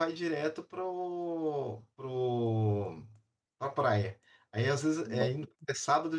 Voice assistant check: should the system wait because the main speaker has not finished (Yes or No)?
Yes